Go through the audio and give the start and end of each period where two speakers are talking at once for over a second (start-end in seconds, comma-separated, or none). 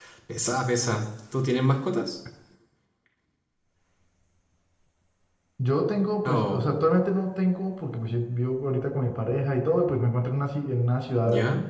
none